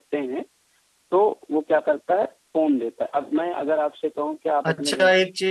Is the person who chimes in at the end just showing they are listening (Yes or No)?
No